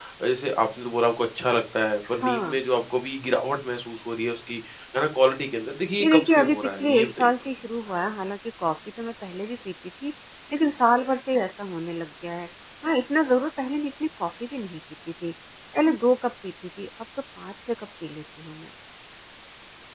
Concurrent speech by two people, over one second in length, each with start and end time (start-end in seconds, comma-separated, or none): 6.0-7.5